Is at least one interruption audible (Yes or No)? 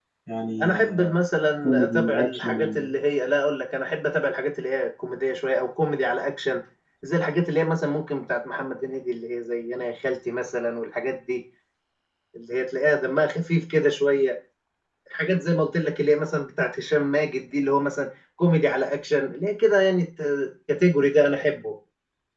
Yes